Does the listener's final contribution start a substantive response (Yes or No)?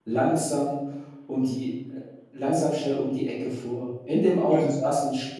No